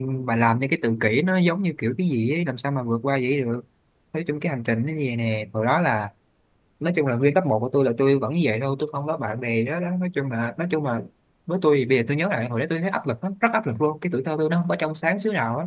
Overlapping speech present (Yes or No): No